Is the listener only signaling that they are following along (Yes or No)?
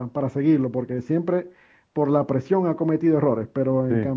Yes